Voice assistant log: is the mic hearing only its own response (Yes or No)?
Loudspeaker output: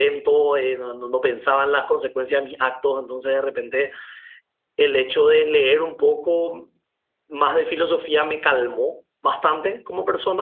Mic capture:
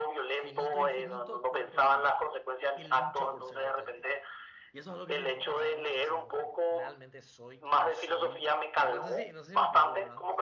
No